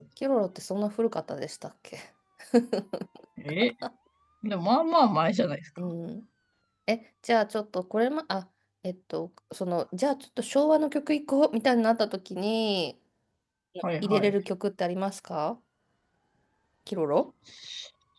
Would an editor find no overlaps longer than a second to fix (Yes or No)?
Yes